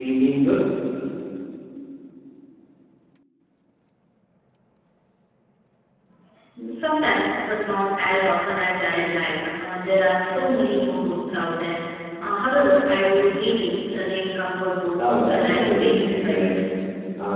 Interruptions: present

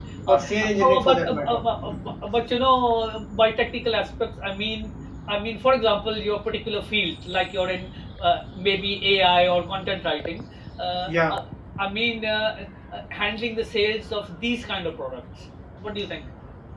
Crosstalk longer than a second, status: present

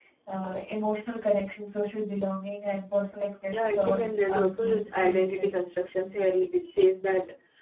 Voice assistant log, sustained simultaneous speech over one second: present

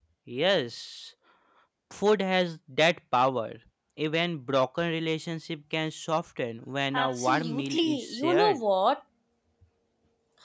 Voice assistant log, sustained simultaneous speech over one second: present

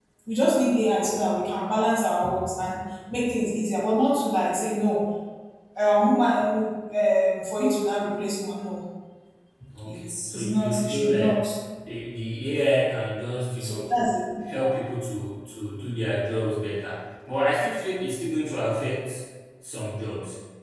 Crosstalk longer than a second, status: present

